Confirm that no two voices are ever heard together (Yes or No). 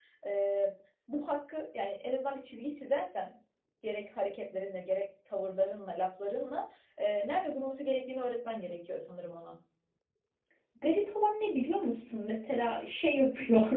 Yes